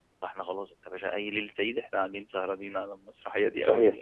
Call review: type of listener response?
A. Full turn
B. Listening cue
A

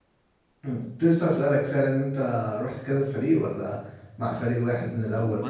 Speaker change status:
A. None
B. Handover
B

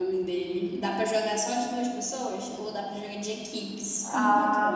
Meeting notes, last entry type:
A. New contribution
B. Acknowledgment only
A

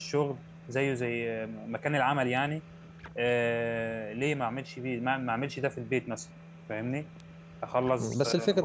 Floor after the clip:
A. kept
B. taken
B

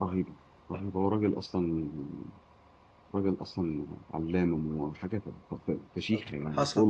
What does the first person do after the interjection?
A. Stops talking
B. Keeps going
A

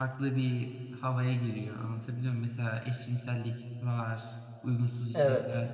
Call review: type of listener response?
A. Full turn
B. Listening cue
B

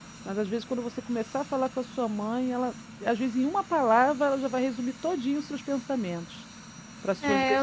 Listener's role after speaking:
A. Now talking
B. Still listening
A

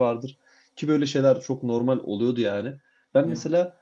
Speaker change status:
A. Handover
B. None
B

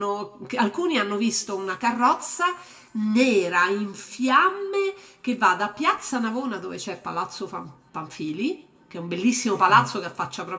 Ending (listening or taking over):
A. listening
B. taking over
A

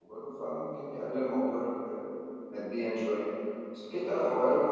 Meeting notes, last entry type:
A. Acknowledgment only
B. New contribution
A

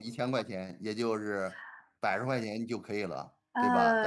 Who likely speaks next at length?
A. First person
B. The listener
B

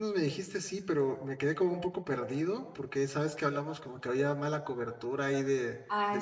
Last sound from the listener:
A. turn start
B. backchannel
B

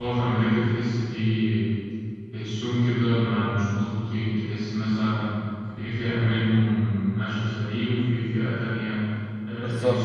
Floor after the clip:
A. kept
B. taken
A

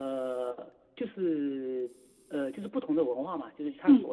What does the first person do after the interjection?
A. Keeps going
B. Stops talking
A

